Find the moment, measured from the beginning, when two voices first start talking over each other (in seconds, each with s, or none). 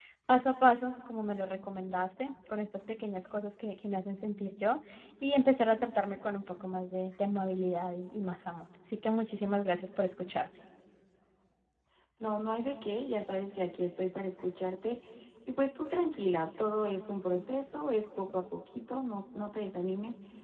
none